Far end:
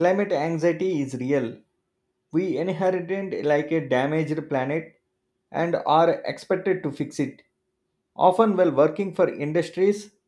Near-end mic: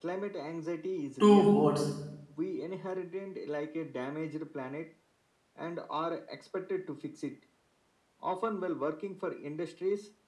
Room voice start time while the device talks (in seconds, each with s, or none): 1.2 s